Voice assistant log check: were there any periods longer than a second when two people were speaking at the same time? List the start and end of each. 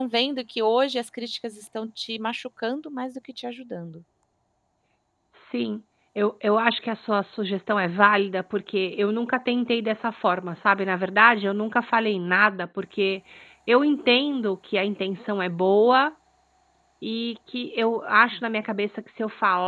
none

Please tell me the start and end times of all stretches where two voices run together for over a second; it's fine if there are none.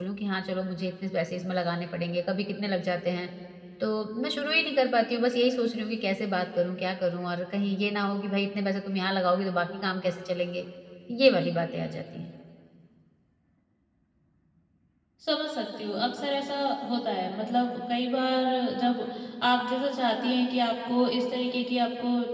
none

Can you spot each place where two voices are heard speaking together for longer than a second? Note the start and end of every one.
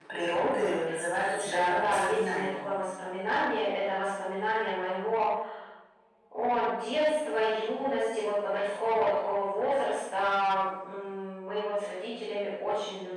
1.2-2.6

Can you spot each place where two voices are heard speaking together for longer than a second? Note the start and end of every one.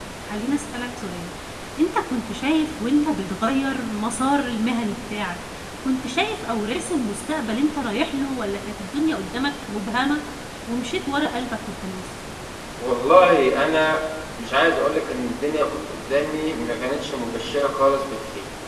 none

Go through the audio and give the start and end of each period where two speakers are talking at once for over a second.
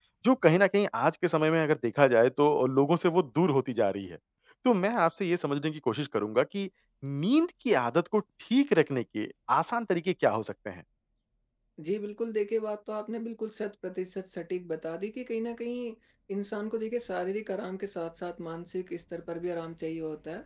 none

